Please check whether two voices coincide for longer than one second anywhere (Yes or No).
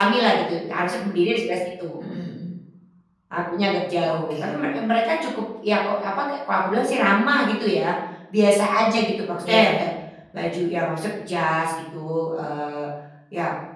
No